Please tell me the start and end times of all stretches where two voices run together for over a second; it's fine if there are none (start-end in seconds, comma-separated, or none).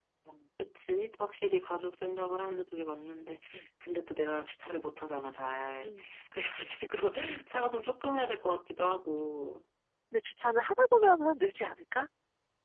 none